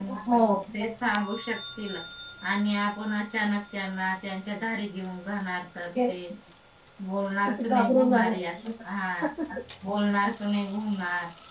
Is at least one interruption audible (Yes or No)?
Yes